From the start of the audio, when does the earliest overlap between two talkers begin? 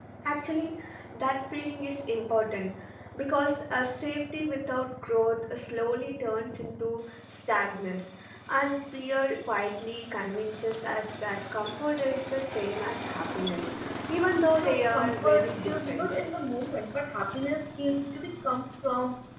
15 s

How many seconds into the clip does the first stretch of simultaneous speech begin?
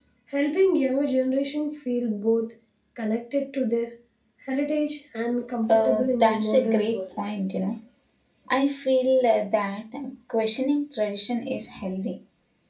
6 s

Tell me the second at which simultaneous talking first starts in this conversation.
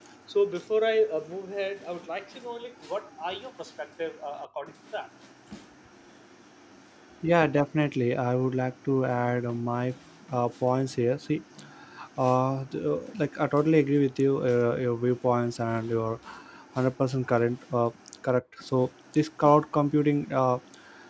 none

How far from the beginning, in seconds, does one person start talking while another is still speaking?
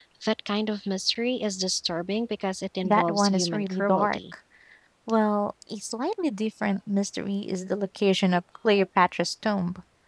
3 s

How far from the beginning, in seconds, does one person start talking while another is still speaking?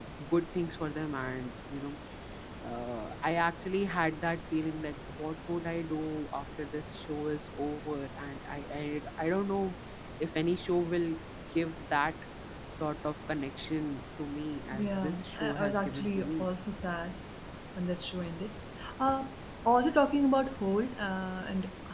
15 s

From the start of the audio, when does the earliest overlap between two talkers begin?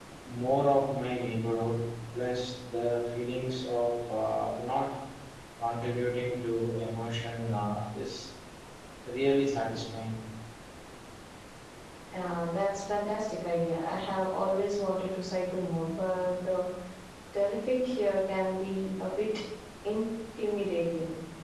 none

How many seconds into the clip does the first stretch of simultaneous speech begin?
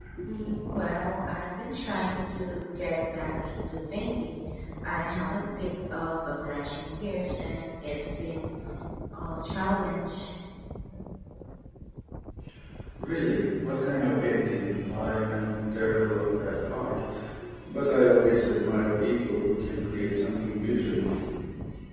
none

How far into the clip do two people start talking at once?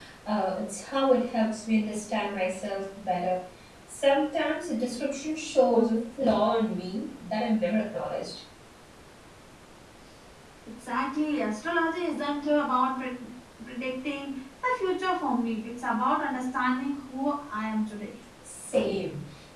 none

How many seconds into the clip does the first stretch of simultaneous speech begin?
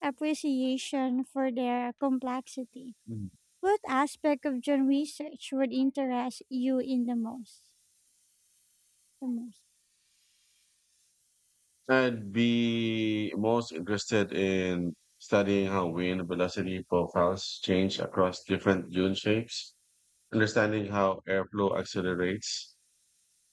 none

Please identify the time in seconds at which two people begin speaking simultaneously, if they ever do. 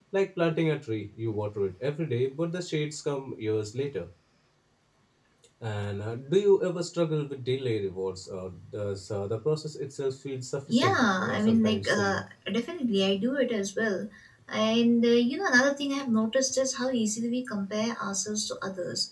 11 s

